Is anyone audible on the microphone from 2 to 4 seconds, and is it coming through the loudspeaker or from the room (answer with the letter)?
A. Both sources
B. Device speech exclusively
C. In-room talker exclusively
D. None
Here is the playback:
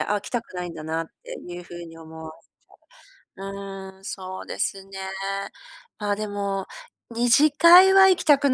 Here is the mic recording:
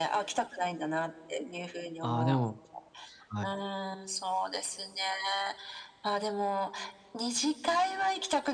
A